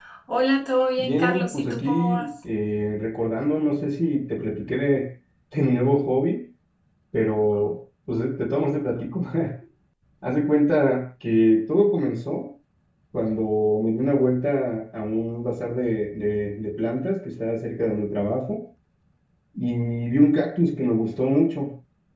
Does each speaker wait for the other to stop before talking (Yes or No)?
No